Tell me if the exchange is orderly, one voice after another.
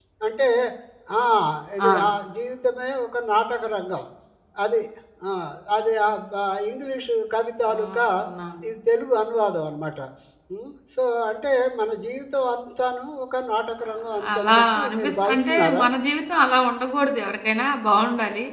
No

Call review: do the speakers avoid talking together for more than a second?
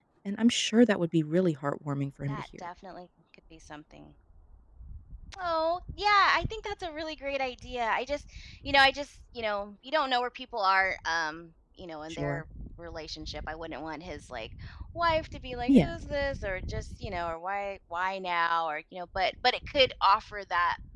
Yes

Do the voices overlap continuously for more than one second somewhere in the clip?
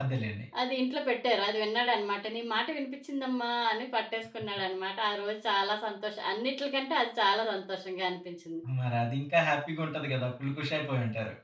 No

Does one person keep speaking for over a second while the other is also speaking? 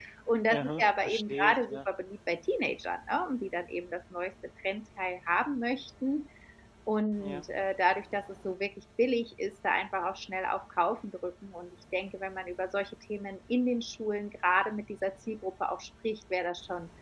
Yes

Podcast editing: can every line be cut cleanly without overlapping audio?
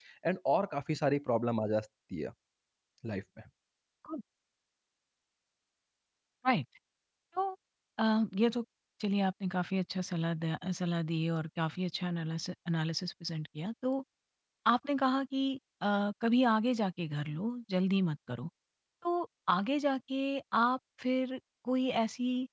Yes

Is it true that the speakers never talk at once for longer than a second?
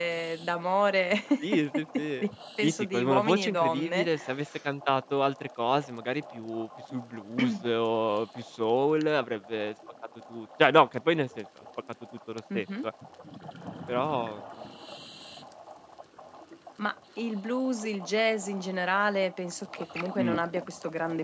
No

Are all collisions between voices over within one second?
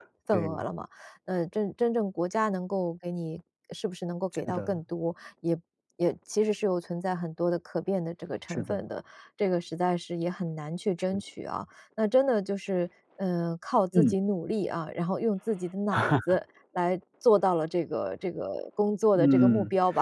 Yes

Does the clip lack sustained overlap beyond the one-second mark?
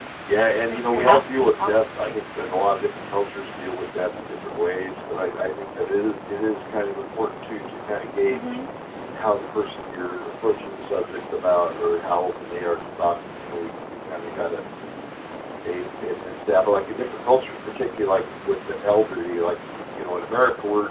No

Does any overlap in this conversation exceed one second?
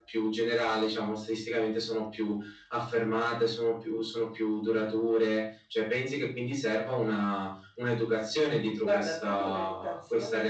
Yes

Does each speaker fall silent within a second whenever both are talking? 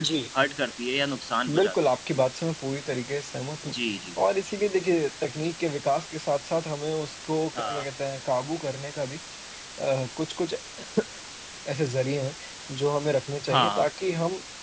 Yes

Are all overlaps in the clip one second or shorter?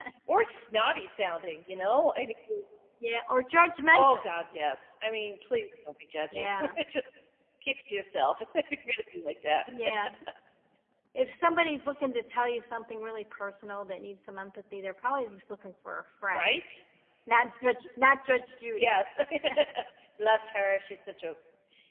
Yes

